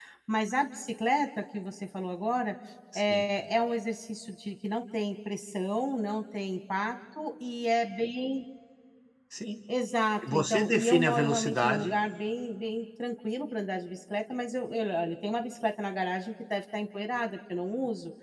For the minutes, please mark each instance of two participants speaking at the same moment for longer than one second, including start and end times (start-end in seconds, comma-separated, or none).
10.3-11.9